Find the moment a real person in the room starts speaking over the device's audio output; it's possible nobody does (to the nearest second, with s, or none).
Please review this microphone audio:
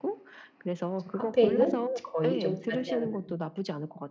1 s